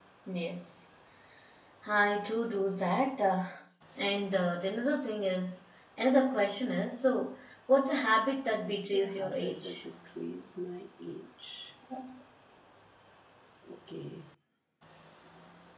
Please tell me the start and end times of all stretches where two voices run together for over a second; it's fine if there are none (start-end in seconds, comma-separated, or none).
8.6-9.8